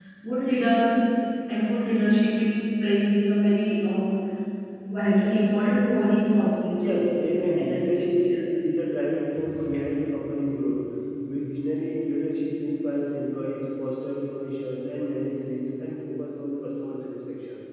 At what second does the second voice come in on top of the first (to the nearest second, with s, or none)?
7 s